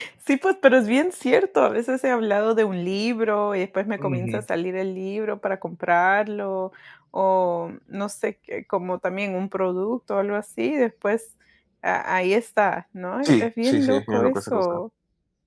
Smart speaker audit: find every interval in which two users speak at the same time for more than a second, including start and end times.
13.2-14.8

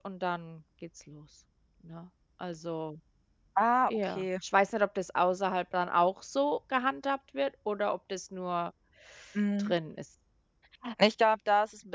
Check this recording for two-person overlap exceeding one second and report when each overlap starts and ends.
none

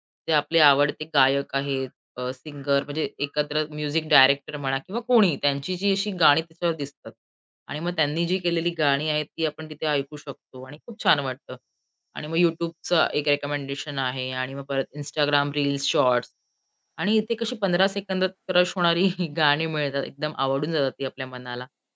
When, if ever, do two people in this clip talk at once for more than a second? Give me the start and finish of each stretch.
none

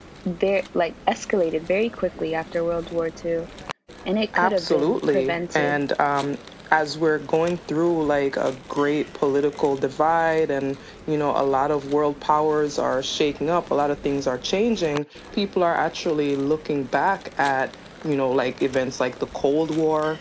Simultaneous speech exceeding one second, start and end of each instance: 4.4-5.8

